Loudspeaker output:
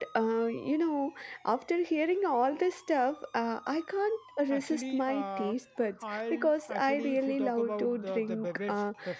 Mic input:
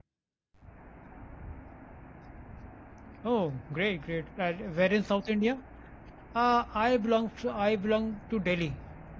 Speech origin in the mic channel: user only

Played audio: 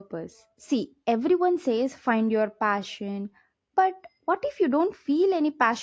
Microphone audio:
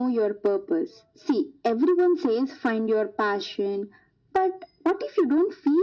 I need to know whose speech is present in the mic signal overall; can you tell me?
echo only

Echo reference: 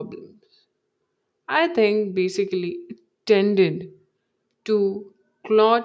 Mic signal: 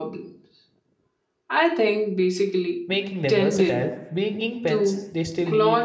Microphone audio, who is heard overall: both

